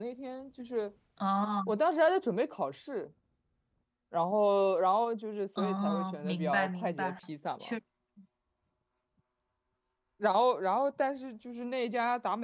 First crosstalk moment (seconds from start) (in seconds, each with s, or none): 5.6 s